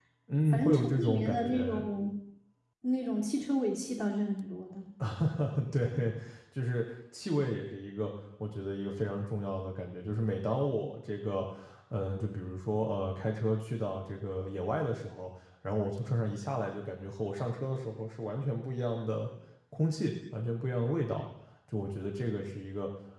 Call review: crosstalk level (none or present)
present